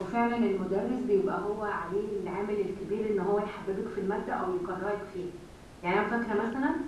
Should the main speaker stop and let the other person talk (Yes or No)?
No